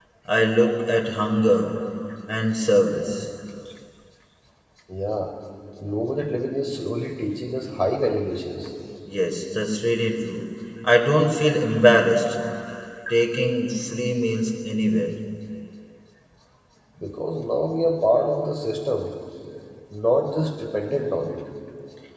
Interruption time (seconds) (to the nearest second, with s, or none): none